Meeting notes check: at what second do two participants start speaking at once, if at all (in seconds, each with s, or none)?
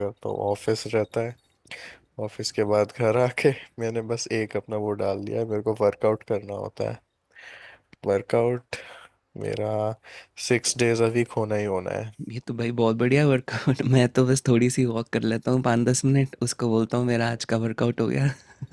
none